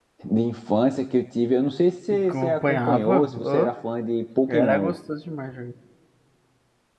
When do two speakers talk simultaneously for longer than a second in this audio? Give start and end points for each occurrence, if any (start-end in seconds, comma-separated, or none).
2.1-3.7